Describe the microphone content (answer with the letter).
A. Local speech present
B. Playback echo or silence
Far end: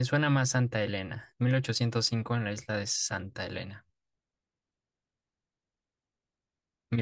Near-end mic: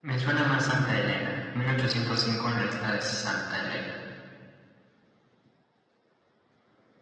B